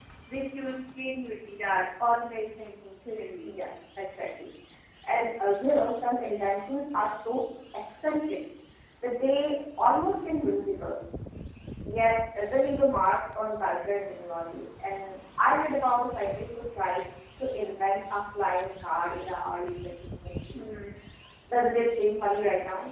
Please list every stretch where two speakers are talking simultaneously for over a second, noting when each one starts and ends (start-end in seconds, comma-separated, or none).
none